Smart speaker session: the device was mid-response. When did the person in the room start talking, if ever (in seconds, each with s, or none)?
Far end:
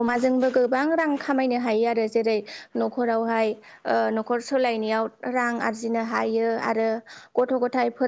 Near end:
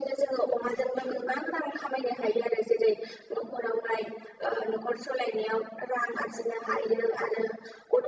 none